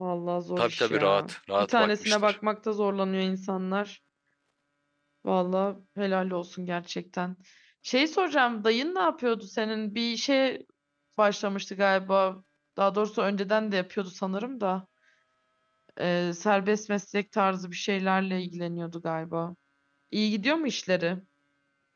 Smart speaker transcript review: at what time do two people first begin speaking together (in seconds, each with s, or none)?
0.6 s